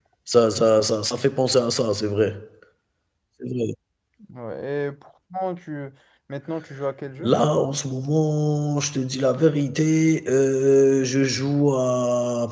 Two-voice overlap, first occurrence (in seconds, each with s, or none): none